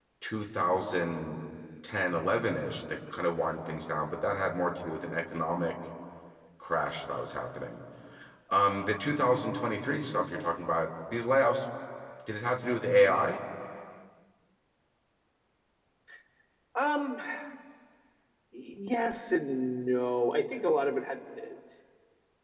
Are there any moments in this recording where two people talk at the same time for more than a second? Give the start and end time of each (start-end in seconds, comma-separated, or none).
none